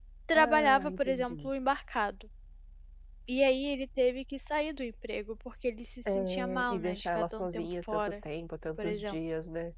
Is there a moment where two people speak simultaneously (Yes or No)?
Yes